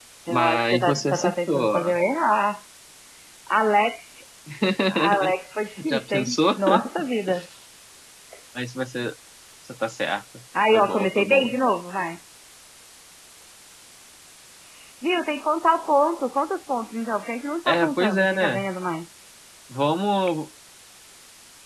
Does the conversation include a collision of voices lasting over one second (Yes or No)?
Yes